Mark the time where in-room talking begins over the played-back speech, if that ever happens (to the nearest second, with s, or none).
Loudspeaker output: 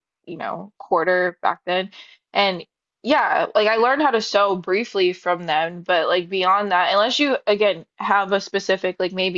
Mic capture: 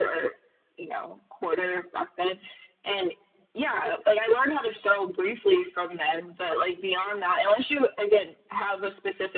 none